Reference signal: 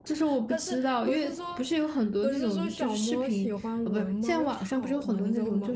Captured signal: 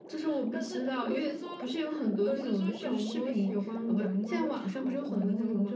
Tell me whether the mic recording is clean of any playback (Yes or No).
No